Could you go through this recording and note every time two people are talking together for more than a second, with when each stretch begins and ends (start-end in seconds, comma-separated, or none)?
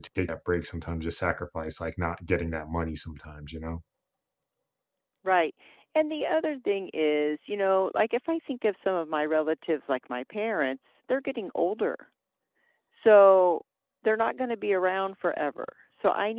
none